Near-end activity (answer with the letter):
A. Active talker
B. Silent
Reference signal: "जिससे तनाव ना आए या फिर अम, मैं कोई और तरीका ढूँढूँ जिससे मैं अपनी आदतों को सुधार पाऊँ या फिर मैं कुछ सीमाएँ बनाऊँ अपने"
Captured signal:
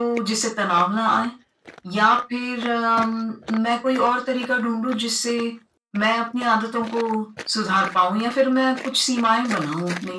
B